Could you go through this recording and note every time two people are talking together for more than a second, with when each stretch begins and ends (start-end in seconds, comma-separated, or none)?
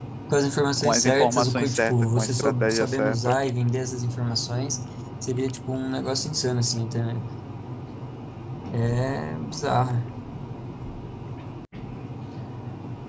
0.8-3.4